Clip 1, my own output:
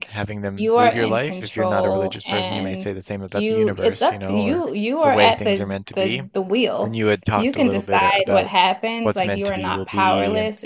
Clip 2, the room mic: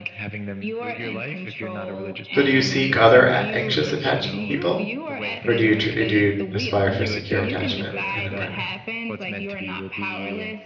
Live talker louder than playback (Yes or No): Yes